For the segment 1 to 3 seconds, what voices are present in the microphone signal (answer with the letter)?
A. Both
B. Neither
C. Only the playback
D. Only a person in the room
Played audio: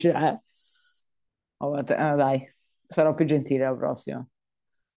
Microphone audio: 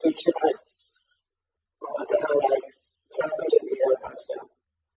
C